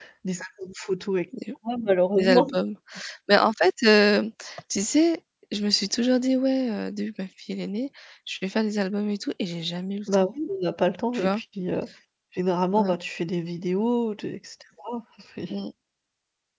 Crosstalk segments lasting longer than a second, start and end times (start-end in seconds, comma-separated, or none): none